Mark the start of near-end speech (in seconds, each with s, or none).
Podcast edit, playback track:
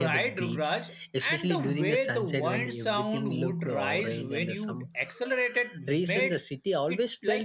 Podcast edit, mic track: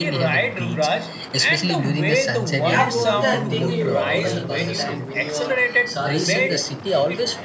2.6 s